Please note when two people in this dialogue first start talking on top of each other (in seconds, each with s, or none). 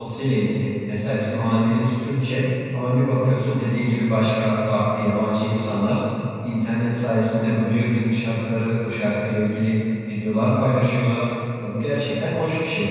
none